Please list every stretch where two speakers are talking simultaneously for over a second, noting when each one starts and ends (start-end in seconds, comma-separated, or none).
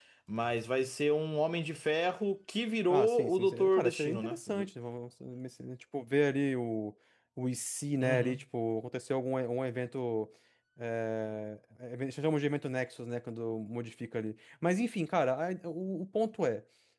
2.9-4.4